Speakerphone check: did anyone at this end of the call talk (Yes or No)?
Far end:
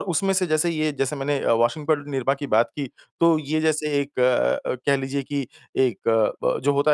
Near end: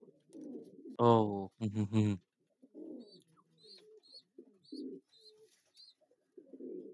Yes